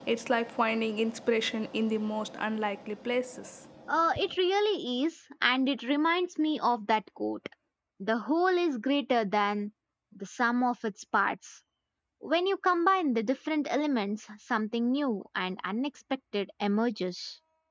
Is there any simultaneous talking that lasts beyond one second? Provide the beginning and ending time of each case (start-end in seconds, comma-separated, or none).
none